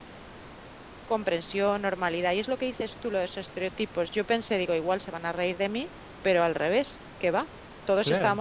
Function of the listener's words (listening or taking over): listening